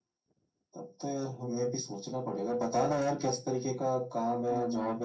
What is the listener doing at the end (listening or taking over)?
listening